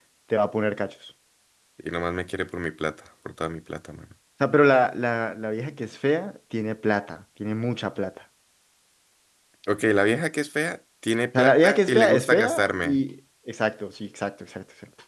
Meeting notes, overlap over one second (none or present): present